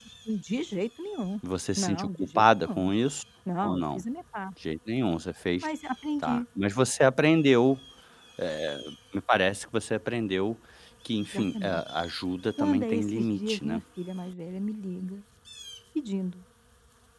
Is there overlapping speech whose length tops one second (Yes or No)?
Yes